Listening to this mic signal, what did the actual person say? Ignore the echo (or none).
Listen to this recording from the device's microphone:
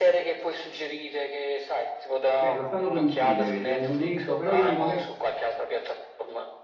cioè lo stanno per uccidere, c'è un momento, però io non dovrei...